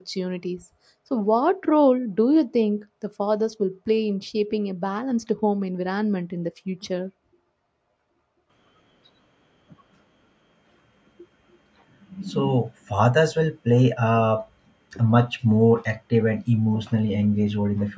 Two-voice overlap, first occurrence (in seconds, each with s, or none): none